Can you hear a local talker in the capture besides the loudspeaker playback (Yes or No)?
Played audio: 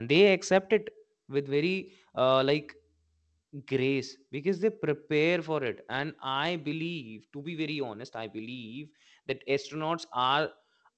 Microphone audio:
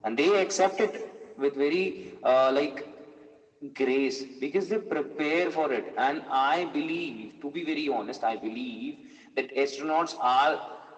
No